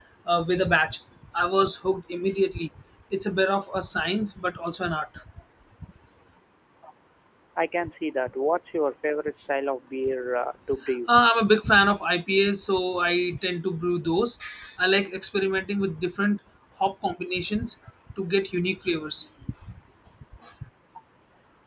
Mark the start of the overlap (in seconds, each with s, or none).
none